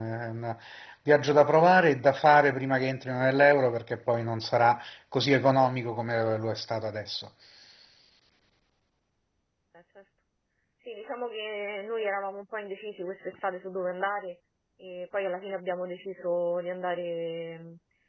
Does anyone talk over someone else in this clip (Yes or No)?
No